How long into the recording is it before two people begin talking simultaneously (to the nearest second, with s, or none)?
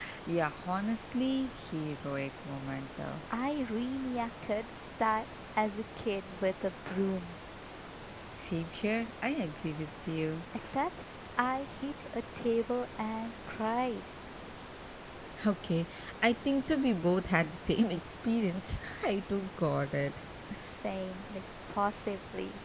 none